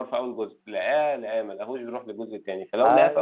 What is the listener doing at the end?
listening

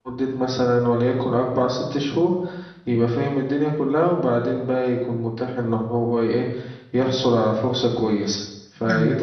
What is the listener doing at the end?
taking over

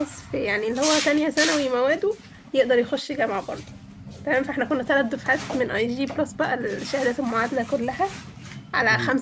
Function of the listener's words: listening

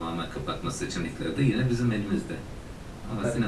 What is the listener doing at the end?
listening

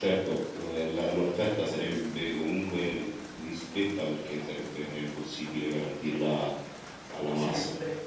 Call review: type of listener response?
listening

